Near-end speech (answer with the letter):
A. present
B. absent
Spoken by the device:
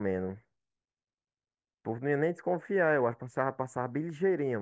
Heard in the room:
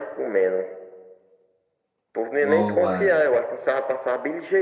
A